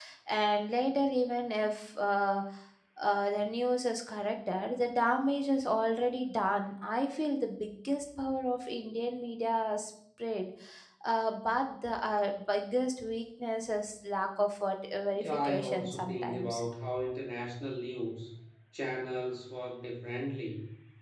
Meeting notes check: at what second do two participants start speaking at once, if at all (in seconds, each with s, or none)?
15.2 s